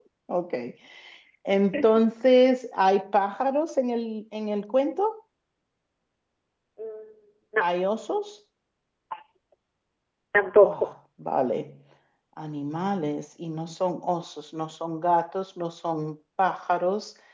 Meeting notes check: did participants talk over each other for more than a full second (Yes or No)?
No